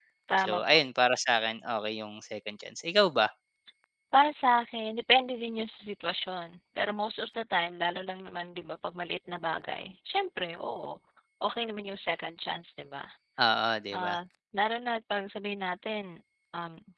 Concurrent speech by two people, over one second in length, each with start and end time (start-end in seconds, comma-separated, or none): none